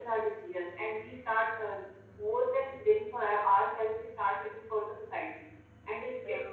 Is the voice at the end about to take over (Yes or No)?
No